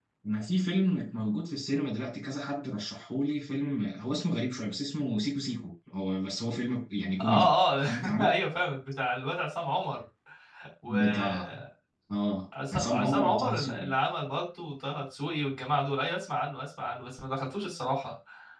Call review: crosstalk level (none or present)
present